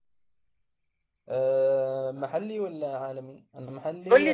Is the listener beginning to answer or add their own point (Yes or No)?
Yes